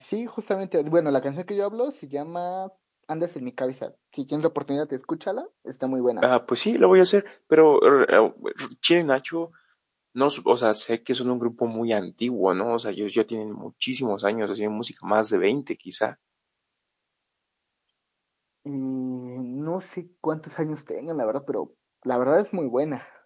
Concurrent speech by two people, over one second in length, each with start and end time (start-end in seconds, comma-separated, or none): none